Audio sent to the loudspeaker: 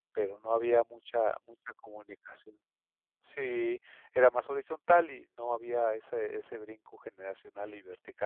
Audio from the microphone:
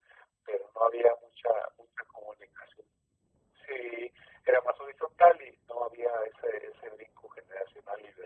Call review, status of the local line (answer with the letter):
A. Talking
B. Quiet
B